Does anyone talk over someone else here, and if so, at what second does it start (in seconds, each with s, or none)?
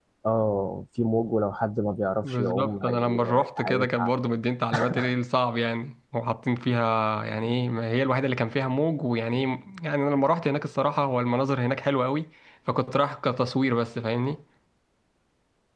2.2 s